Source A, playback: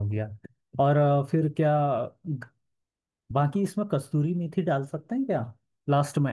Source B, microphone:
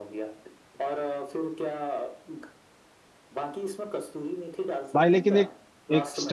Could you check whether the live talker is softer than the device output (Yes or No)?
No